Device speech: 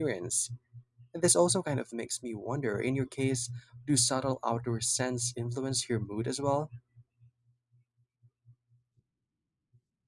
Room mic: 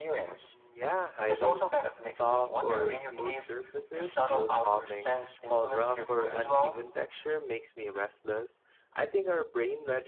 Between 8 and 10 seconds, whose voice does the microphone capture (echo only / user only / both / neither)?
user only